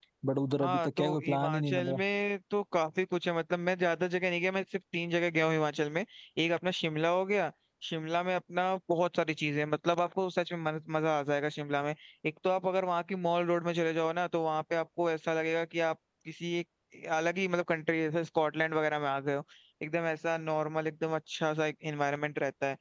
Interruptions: present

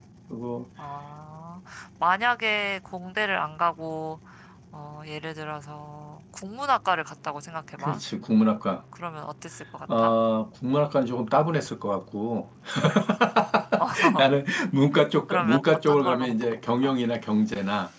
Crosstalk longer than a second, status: present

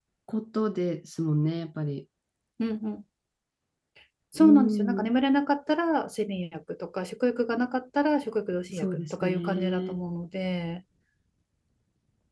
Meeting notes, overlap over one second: present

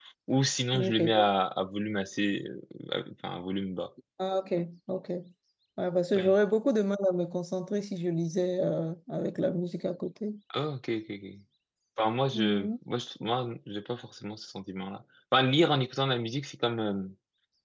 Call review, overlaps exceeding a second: none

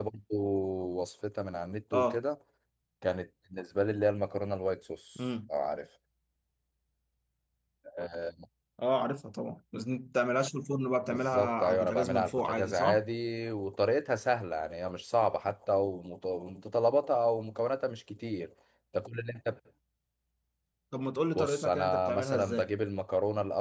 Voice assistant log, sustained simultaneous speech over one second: present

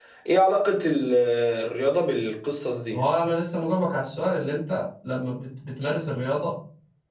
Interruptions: none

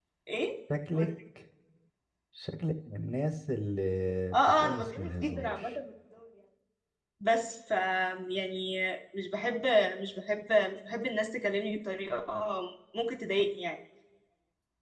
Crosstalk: present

